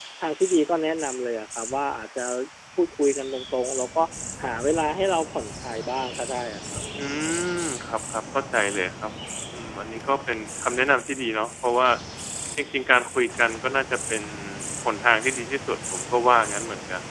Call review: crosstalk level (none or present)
none